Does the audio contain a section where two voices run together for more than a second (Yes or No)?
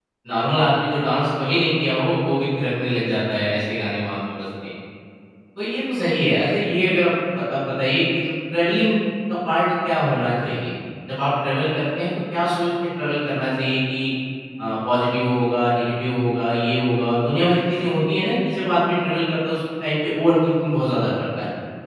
No